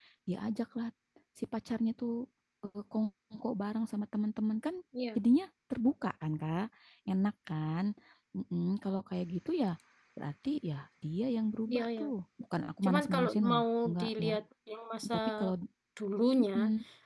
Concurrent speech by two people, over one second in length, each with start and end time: 12.8-14.3

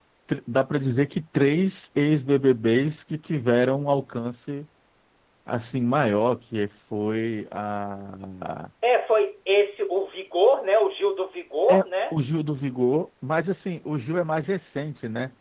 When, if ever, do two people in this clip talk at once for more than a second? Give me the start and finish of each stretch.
none

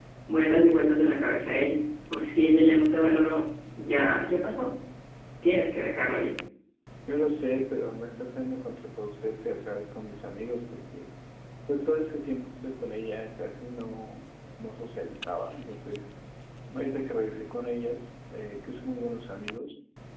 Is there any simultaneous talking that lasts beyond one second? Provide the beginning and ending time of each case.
none

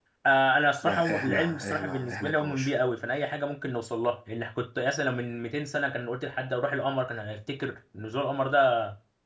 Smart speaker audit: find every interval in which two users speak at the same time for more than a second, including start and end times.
0.8-2.7

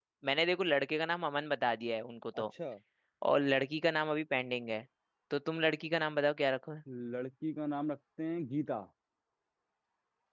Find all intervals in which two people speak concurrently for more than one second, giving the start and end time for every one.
none

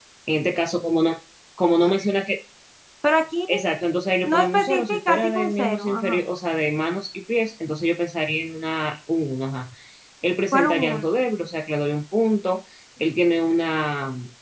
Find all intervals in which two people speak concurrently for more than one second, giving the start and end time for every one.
4.2-6.2

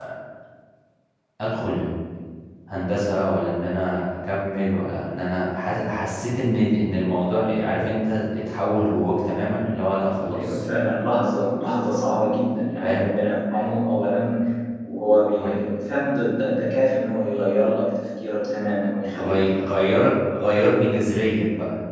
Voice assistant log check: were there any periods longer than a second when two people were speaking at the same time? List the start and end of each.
none

